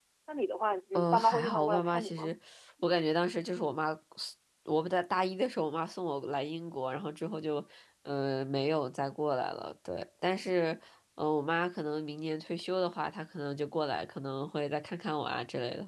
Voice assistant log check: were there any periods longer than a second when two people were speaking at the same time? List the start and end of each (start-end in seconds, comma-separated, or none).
0.9-2.4